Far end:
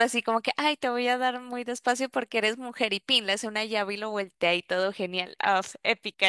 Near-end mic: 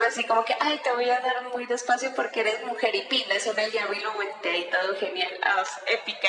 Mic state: echo only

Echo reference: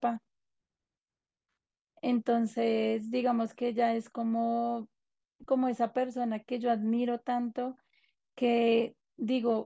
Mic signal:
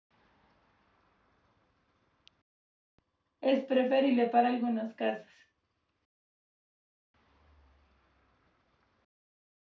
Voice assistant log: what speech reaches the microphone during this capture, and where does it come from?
user only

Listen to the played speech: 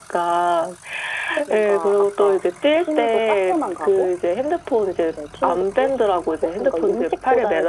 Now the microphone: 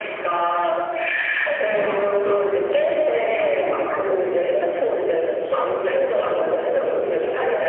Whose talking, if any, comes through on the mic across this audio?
echo only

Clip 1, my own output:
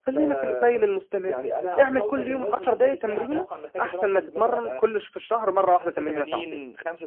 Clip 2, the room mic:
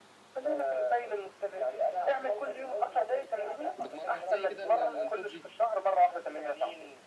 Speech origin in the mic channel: both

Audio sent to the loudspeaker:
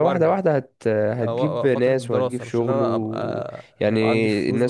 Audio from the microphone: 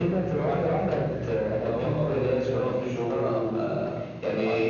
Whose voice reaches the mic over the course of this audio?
echo only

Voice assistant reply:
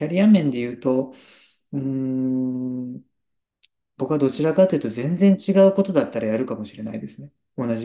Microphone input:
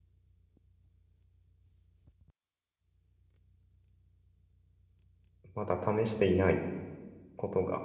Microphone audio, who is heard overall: user only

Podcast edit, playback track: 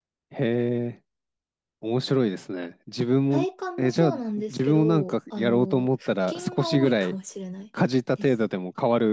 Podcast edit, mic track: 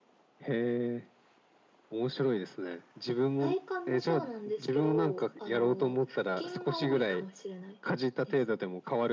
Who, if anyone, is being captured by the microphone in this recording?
echo only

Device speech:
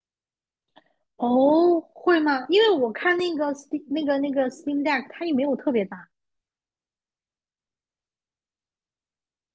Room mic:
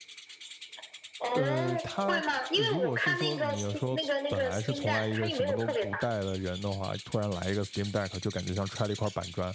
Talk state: both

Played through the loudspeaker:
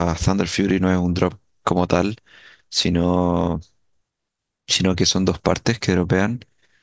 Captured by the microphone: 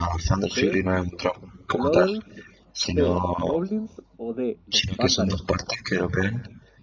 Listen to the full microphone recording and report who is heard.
both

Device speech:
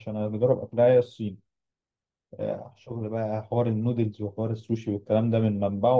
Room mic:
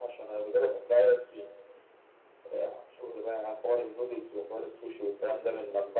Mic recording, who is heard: echo only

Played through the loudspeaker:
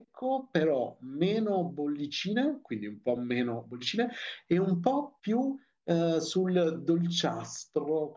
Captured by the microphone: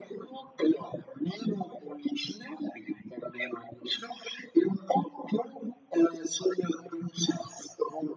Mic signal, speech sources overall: echo only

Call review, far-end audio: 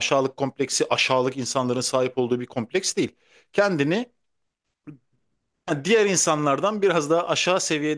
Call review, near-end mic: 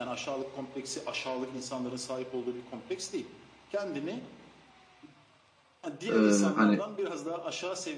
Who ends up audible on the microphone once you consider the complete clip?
both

